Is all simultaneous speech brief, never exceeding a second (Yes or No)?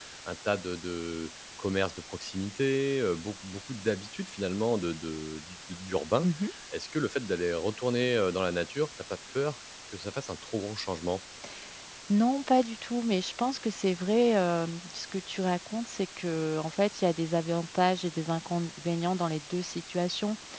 Yes